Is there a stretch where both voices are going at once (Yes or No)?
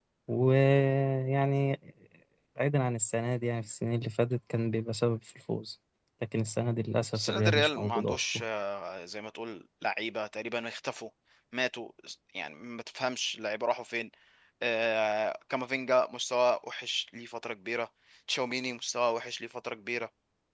Yes